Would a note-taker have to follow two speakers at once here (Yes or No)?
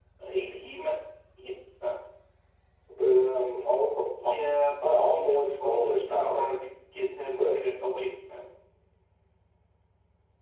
Yes